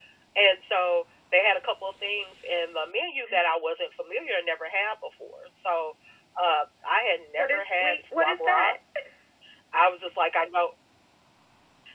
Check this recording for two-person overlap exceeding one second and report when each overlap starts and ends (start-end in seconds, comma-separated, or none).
7.4-8.8